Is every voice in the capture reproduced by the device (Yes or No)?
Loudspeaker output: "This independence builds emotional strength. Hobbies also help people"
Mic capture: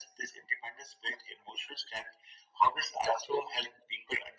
Yes